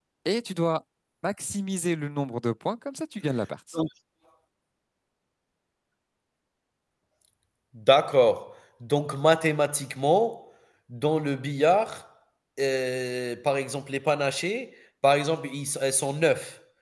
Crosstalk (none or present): none